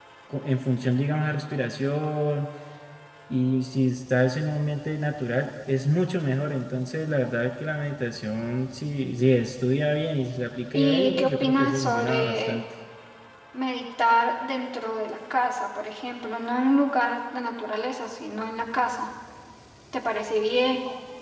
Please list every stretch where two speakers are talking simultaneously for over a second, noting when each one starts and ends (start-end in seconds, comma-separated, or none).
10.7-12.6